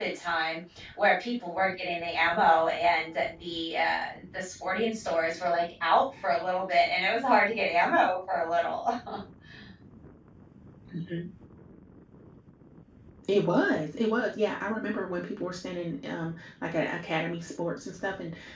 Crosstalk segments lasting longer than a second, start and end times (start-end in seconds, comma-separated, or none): none